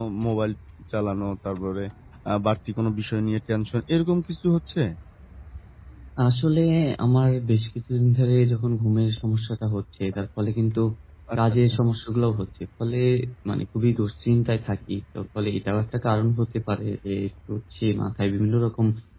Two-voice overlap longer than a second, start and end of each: none

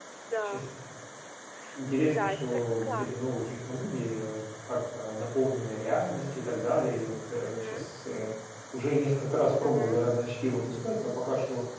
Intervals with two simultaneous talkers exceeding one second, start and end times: 2.1-3.4

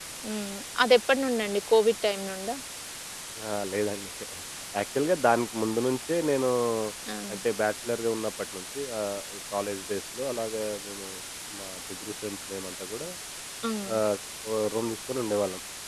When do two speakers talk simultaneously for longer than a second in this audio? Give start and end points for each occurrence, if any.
none

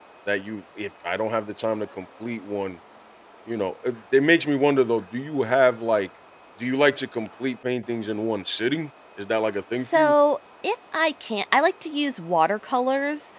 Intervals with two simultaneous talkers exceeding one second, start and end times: none

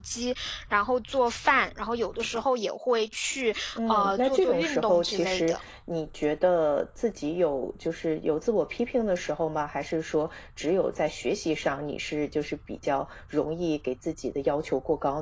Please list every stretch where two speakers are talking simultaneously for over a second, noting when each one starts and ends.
3.8-5.5

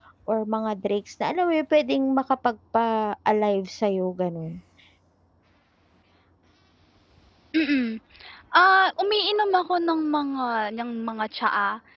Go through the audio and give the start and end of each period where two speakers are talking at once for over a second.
none

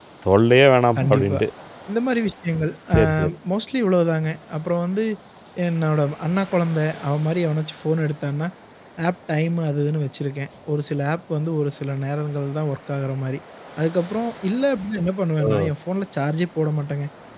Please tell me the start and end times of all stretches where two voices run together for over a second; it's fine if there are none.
none

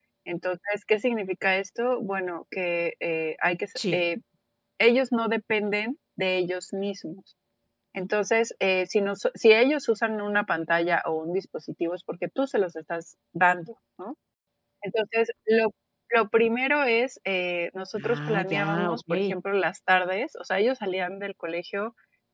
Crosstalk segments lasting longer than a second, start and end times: 17.9-19.3

